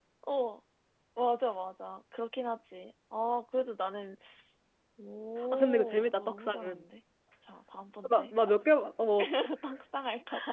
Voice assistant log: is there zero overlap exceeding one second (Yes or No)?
No